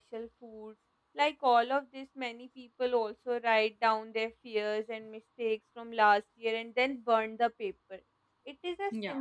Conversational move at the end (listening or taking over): listening